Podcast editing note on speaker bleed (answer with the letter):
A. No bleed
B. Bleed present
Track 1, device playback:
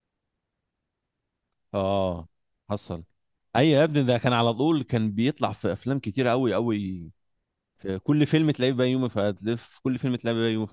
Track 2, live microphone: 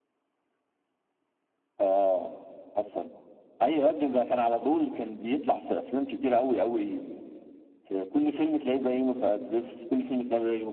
B